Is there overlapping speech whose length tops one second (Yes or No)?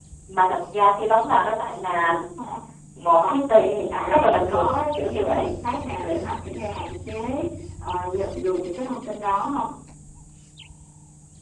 Yes